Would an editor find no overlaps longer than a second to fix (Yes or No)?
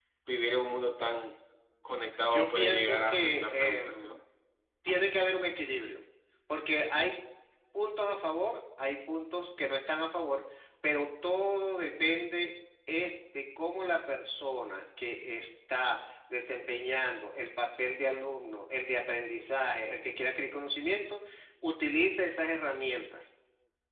No